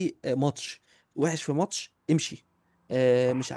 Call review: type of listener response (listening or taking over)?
listening